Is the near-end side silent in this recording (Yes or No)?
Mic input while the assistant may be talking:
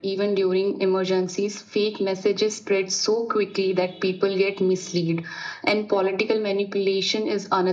Yes